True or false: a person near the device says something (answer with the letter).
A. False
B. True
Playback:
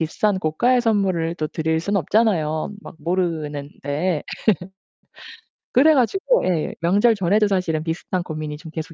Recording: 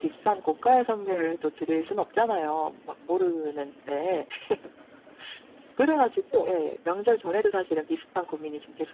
B